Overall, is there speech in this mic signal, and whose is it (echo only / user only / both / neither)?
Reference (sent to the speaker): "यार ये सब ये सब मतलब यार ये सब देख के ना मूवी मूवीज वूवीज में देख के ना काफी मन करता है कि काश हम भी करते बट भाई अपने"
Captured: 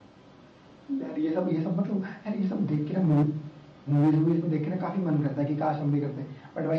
echo only